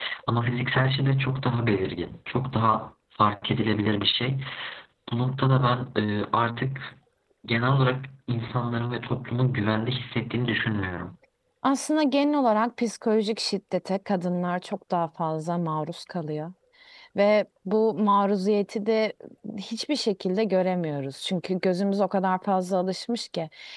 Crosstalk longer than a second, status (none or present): none